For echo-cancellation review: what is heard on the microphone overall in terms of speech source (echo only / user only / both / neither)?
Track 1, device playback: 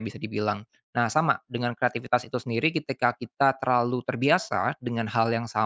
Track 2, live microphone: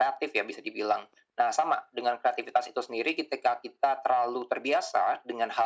echo only